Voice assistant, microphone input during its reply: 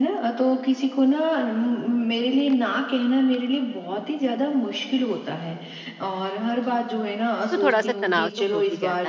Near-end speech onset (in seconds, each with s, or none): 7.5 s